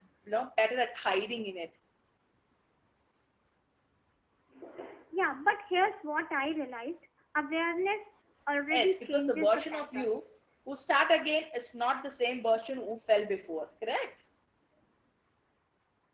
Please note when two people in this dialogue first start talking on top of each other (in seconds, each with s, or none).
8.7 s